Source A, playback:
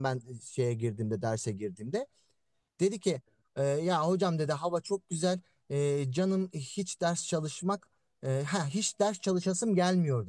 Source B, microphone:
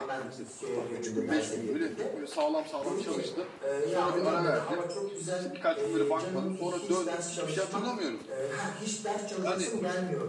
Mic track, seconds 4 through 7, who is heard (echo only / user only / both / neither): both